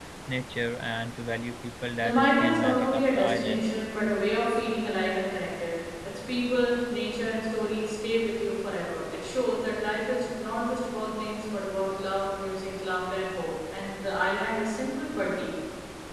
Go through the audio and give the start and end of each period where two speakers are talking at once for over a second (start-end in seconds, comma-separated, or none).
2.0-3.6